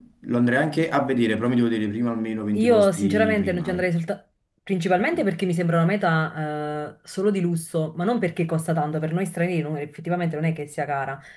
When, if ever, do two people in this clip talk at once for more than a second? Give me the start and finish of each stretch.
2.5-3.9

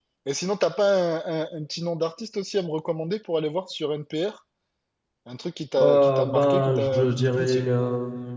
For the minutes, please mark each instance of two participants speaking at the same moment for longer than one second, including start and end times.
5.8-7.6

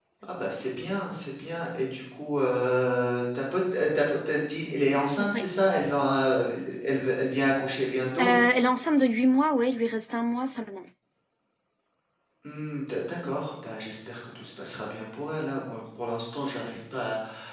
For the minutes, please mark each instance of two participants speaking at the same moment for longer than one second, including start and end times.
none

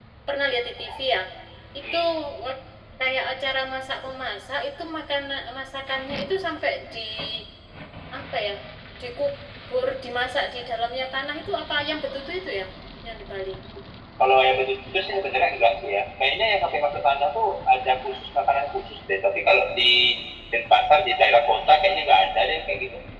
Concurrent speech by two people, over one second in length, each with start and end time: none

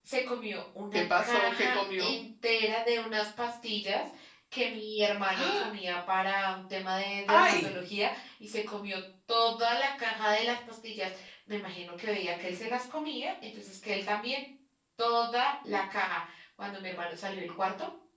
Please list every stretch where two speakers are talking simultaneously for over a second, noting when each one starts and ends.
0.9-2.1

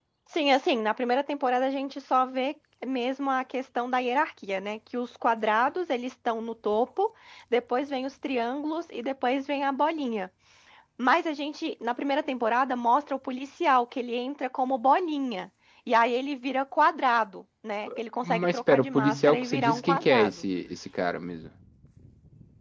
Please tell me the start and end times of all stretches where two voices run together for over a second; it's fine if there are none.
18.2-20.4

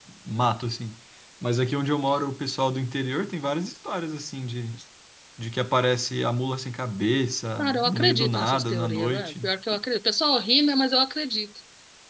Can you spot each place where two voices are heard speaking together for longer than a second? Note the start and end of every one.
7.6-9.5

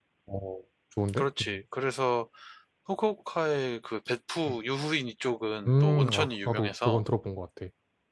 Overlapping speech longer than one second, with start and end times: 5.7-7.0

